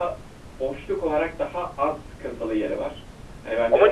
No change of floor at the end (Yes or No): No